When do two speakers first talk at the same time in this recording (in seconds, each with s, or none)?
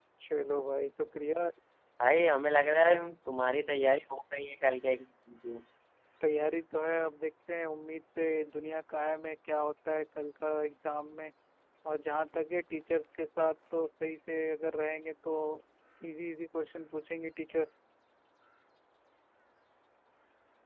none